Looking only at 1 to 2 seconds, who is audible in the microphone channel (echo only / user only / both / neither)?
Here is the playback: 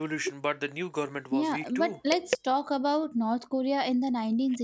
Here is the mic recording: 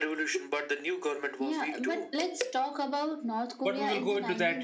echo only